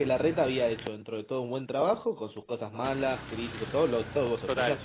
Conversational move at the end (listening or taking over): listening